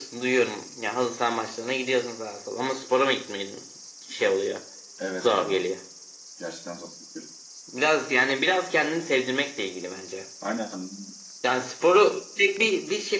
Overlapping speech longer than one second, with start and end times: none

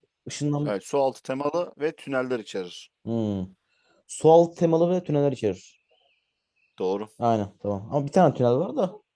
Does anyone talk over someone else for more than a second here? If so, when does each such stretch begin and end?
none

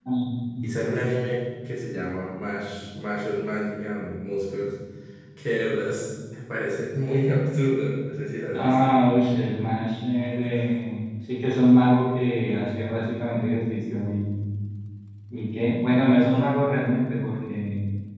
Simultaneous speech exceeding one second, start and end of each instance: none

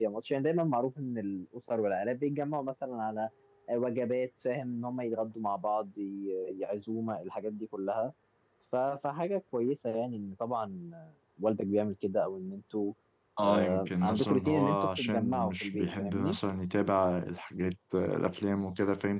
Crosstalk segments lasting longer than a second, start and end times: 13.4-16.4

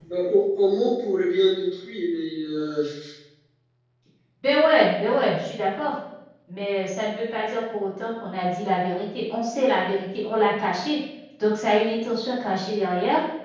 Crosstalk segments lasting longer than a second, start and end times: none

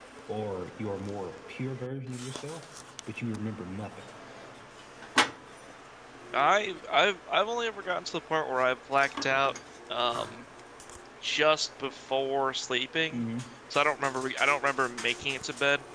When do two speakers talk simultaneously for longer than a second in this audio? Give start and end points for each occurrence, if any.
none

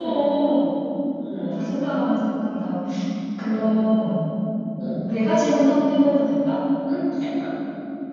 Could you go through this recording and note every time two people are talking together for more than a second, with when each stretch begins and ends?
none

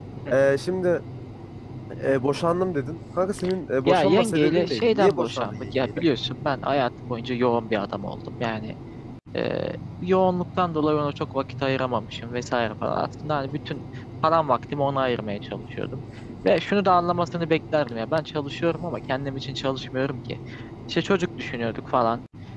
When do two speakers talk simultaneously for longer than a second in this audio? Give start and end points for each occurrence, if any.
3.9-6.0

